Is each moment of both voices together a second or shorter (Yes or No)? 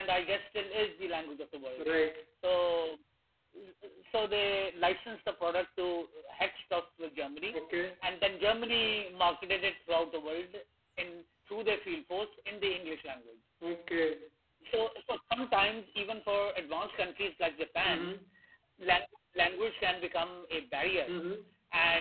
Yes